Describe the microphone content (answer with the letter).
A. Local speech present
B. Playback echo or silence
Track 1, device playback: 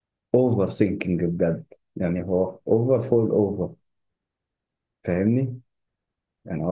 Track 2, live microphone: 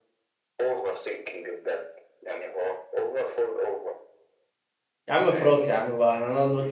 A